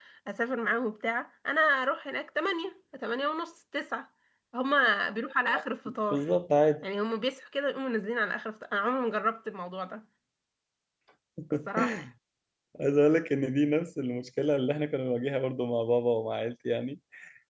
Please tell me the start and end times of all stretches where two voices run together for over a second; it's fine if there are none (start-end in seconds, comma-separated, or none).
none